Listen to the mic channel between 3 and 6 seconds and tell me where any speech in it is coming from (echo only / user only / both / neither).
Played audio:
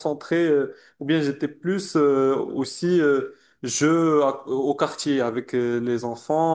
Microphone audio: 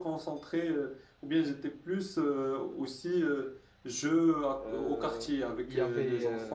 both